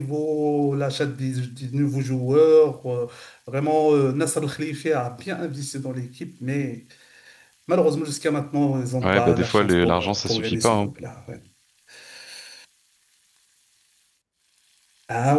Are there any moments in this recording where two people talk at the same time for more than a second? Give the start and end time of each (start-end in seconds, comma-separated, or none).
9.0-10.9